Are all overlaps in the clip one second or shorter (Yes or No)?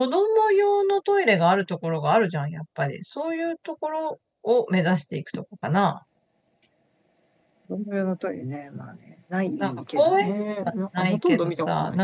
No